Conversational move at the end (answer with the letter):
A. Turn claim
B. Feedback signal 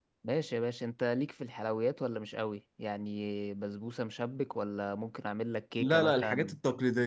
A